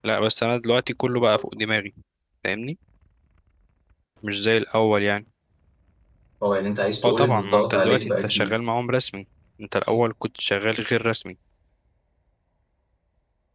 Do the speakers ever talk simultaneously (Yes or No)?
Yes